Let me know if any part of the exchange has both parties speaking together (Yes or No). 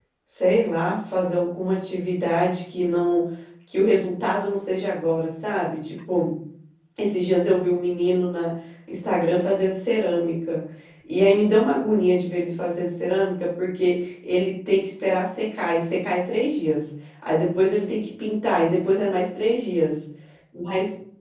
No